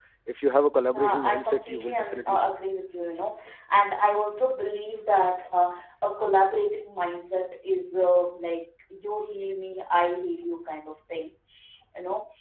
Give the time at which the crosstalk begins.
0.9 s

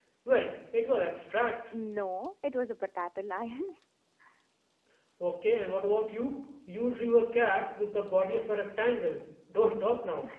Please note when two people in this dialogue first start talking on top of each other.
none

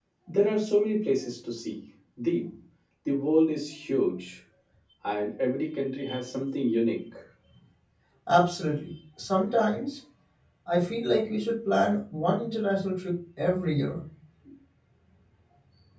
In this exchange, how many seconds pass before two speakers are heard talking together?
none

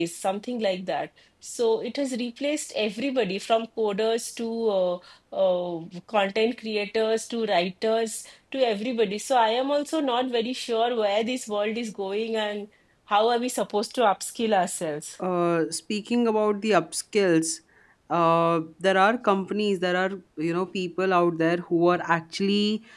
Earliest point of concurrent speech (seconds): none

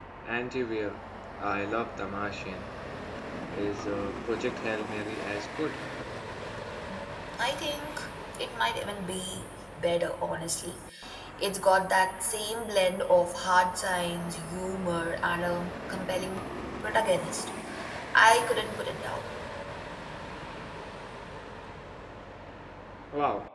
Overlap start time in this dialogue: none

